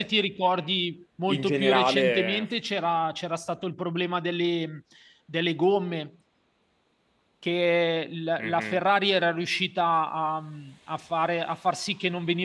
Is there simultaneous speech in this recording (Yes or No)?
Yes